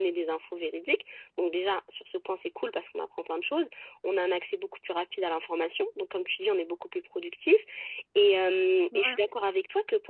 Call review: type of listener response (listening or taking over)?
listening